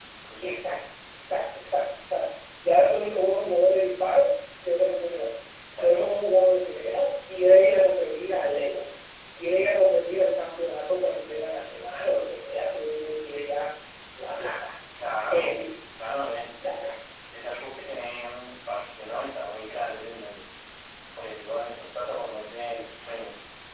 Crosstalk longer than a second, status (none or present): none